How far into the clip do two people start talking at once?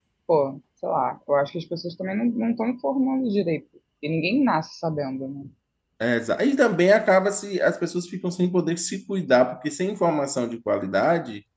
none

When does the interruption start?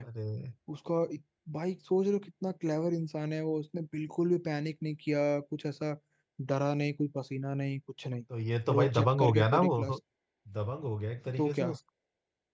8.7 s

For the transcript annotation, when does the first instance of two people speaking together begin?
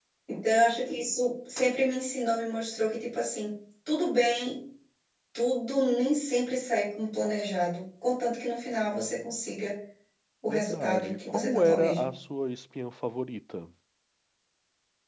10.5 s

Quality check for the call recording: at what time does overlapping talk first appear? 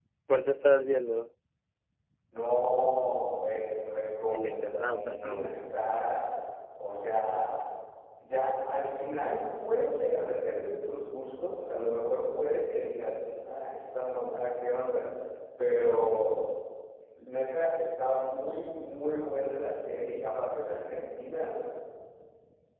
4.3 s

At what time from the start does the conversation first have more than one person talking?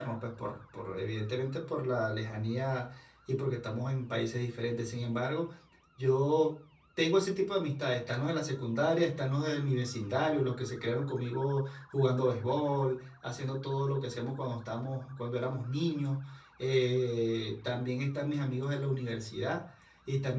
none

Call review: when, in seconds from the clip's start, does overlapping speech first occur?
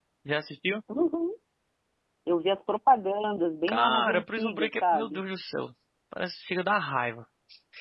3.7 s

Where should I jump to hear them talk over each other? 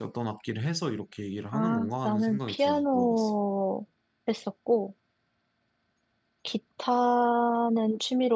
1.5 s

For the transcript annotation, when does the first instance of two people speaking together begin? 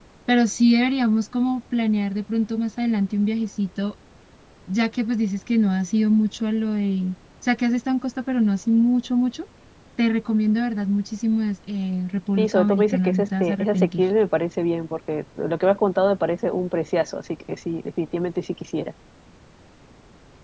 12.4 s

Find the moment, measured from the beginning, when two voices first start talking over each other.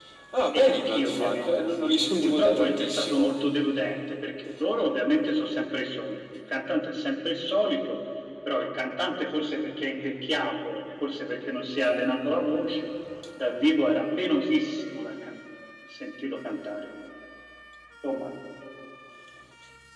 0.5 s

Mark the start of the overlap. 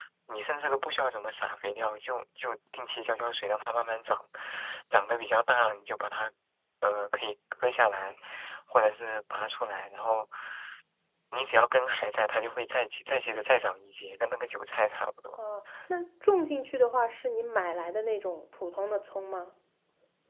none

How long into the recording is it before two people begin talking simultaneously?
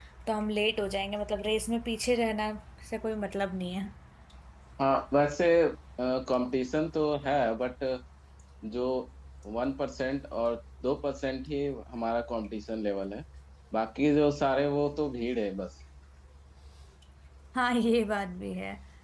none

